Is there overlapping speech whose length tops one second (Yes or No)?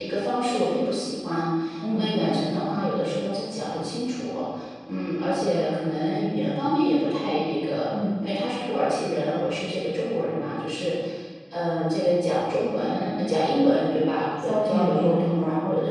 Yes